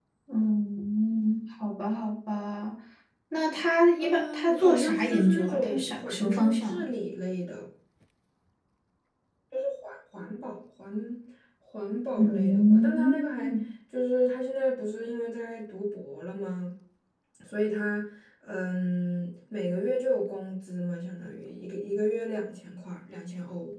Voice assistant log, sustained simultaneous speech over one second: present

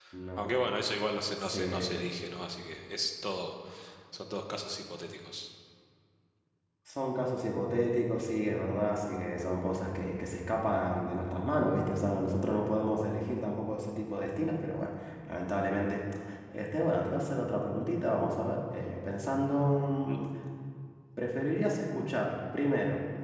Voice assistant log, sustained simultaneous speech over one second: none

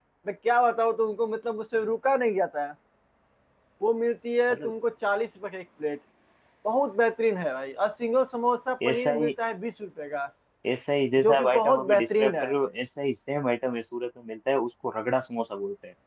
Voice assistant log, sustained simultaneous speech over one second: present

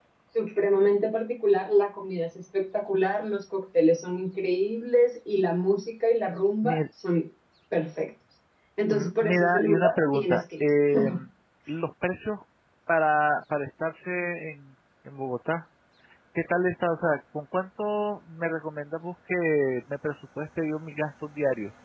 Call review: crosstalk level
present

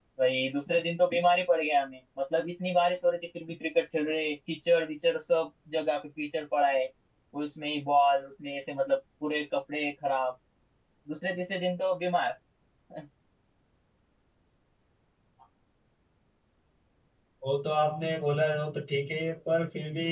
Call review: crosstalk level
none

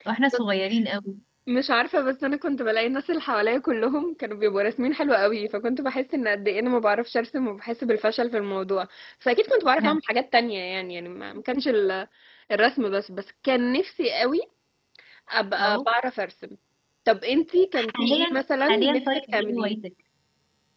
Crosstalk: present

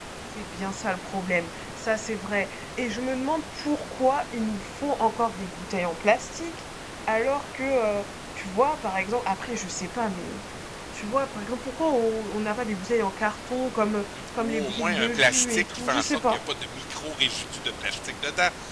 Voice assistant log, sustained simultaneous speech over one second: present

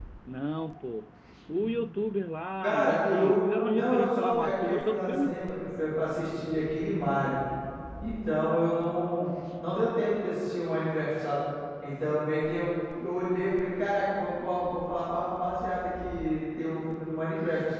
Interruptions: present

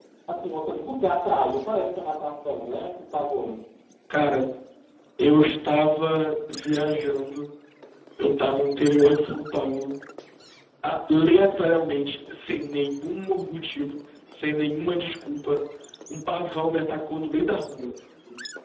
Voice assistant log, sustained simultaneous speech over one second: none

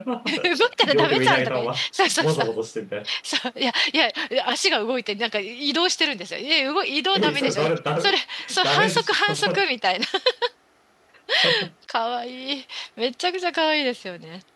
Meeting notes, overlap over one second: present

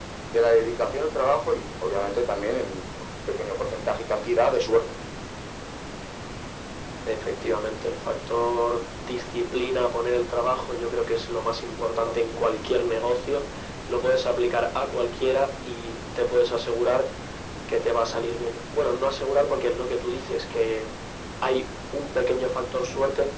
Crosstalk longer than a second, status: none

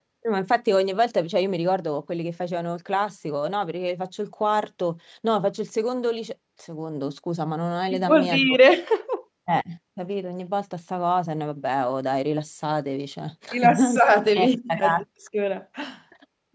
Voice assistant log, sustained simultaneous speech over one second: present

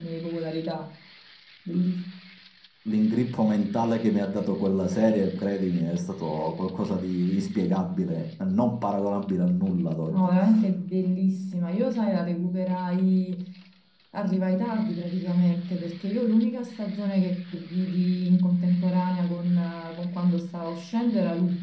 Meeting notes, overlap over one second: none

